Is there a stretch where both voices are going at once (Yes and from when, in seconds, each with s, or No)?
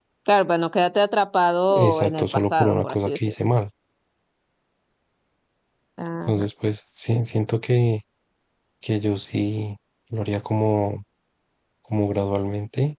Yes, from 1.7 s